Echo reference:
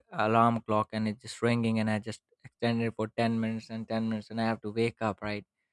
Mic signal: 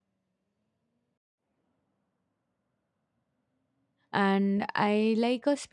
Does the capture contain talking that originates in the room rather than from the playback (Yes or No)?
Yes